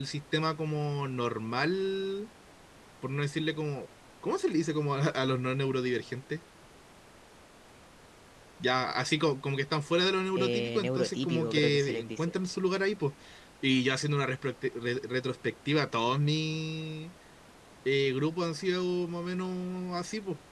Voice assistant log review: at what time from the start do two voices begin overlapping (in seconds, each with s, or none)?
10.3 s